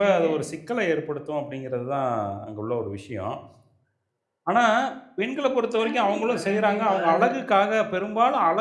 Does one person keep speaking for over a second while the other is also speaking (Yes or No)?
Yes